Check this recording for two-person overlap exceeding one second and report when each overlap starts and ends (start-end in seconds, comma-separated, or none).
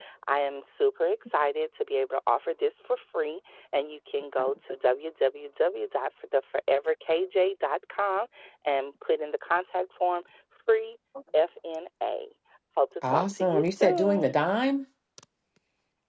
13.0-14.3